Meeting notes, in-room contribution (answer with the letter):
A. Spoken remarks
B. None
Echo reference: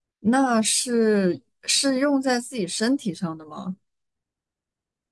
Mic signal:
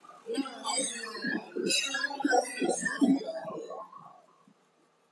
B